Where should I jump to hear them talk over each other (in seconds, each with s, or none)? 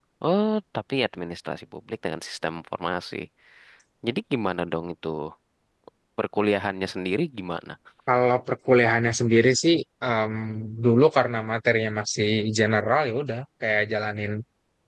none